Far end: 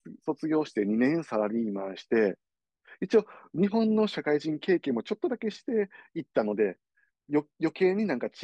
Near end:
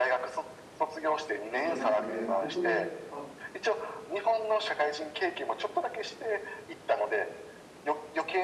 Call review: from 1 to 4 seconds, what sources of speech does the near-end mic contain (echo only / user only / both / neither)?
both